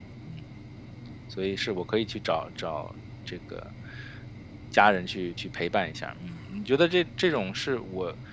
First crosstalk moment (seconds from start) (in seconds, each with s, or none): none